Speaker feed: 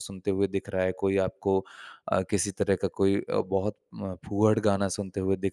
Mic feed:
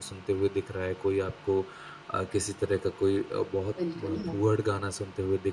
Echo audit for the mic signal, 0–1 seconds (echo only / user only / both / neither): echo only